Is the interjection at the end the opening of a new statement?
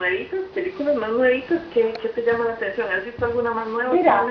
Yes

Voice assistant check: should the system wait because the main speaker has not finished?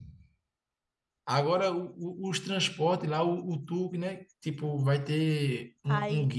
No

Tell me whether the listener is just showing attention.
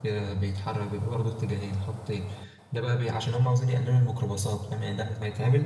Yes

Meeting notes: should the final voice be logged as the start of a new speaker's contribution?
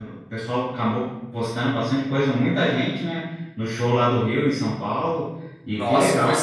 Yes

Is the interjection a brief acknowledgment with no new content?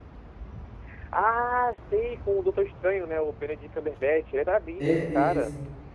No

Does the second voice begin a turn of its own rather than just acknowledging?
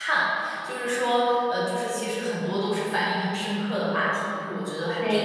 Yes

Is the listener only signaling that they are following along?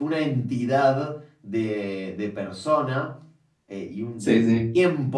Yes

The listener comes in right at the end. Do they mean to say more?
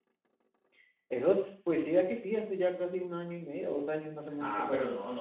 Yes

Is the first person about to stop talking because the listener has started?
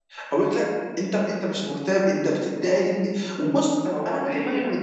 No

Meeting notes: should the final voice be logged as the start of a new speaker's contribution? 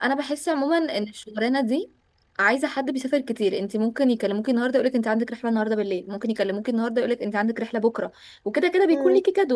No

